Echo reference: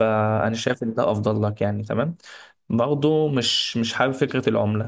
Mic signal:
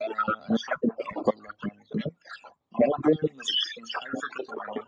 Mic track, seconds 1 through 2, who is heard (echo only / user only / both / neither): echo only